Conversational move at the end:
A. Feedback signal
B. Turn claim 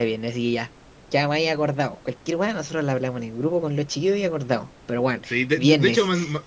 B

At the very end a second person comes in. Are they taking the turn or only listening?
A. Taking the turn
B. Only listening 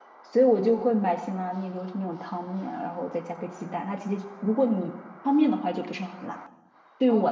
A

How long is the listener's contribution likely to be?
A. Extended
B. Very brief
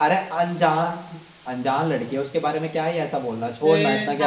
A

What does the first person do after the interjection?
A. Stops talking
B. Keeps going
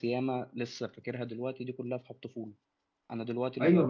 A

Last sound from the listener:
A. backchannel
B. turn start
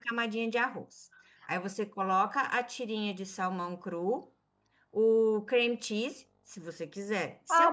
B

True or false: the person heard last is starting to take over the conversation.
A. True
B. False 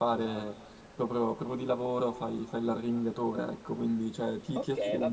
A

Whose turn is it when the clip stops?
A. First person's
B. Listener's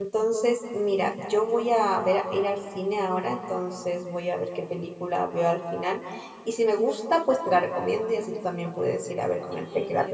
B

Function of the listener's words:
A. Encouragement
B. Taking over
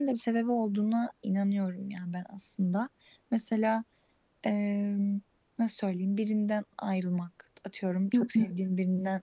A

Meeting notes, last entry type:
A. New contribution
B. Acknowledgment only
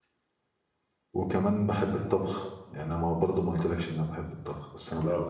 A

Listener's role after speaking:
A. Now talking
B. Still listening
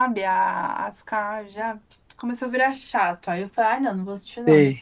B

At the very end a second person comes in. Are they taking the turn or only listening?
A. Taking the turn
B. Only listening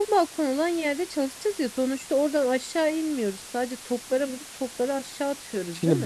A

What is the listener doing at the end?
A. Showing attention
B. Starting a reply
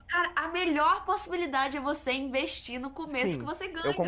B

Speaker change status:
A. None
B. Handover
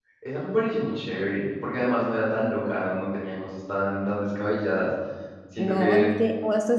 B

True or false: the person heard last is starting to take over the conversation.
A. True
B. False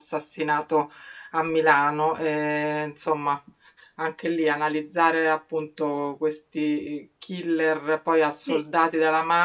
B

